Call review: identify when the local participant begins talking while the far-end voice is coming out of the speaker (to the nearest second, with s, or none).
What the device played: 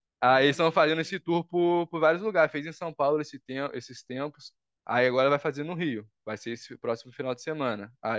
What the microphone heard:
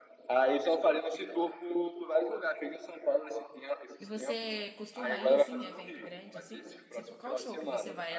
4 s